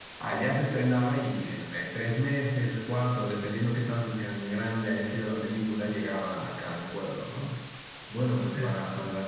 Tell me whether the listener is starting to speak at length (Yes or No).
No